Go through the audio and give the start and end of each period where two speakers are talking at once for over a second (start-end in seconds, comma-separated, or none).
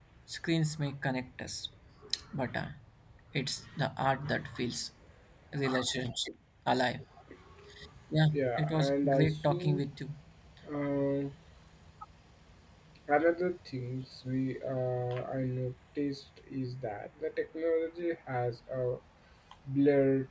8.3-9.8